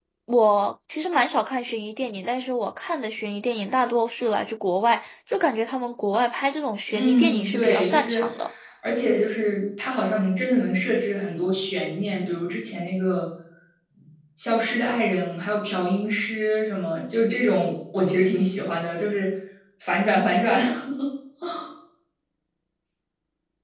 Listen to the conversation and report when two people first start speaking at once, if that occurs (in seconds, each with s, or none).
6.9 s